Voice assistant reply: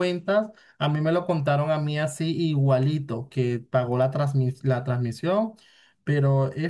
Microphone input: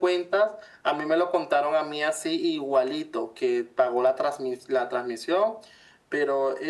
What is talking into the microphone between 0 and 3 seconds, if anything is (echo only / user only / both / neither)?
echo only